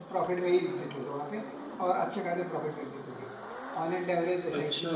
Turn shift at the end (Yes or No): No